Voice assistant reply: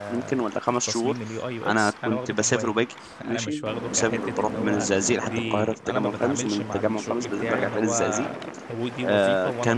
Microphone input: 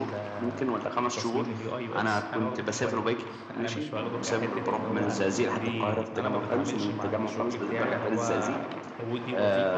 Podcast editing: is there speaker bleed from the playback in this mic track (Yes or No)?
Yes